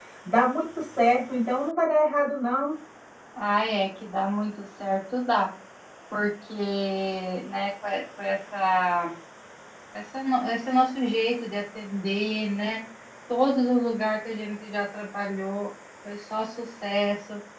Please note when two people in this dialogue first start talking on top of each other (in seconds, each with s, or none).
none